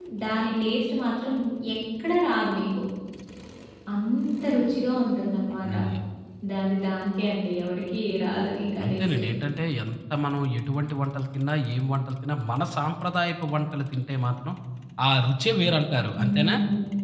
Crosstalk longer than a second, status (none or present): none